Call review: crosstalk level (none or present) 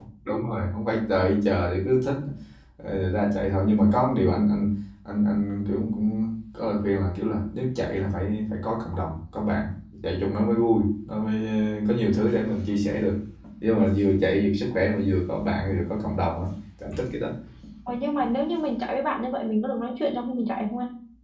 none